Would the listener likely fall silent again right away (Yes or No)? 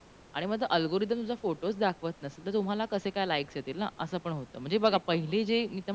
Yes